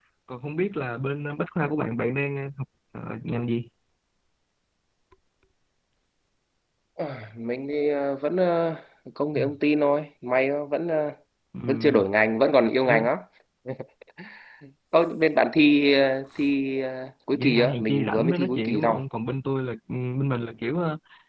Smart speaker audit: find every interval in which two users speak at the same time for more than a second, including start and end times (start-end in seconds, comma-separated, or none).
17.3-19.0